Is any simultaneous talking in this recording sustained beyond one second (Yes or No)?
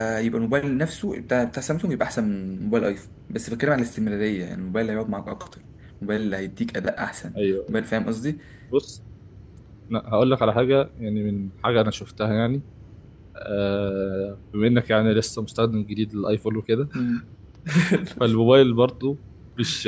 No